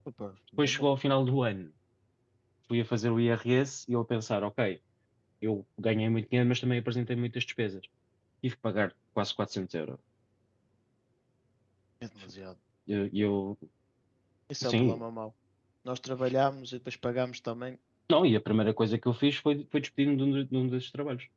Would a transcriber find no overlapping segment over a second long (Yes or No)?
Yes